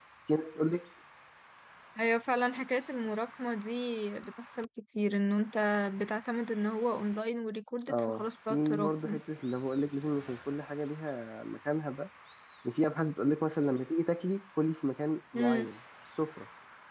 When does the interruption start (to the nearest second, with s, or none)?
8 s